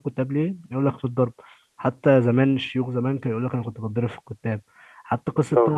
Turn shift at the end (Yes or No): No